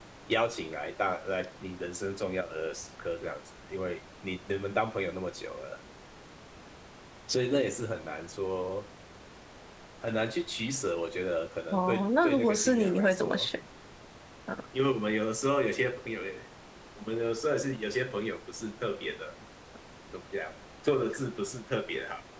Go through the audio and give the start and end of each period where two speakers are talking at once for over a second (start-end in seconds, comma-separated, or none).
11.7-13.5